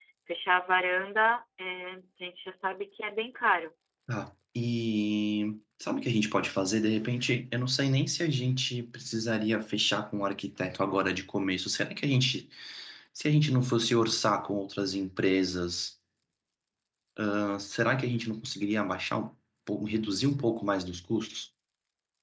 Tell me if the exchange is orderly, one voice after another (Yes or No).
Yes